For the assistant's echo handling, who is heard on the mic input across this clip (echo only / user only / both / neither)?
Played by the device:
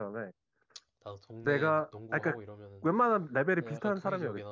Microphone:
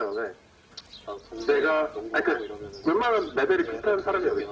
echo only